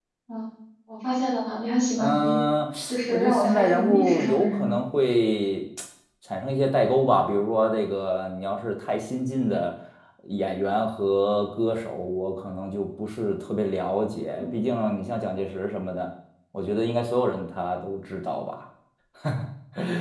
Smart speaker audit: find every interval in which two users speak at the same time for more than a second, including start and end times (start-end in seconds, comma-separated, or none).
3.1-4.8